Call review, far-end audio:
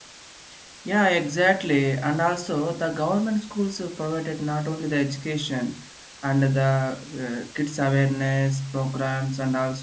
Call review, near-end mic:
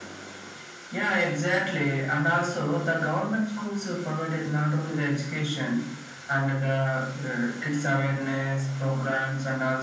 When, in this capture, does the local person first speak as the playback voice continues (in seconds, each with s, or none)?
none